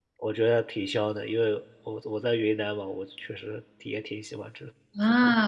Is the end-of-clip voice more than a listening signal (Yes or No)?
Yes